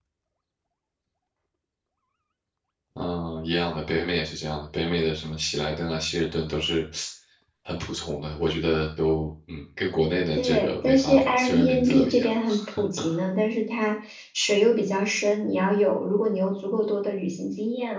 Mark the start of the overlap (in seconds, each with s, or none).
10.4 s